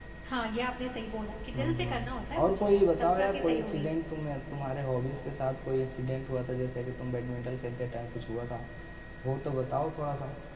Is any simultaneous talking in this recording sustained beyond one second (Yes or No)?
Yes